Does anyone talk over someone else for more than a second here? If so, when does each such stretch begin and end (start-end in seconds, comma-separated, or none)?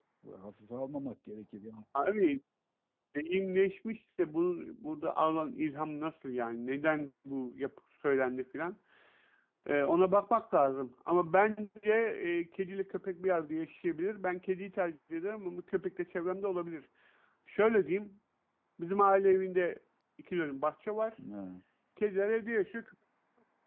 none